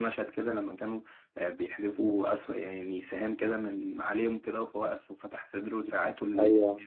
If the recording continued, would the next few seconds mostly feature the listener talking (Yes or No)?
Yes